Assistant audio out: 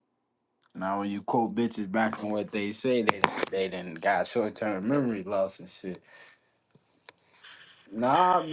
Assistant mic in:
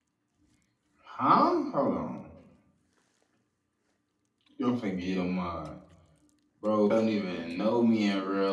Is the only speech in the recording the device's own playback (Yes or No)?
No